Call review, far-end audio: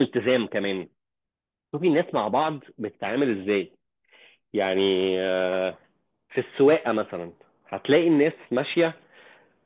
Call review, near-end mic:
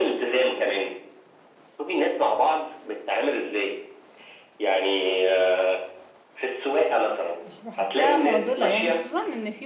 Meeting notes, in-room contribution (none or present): present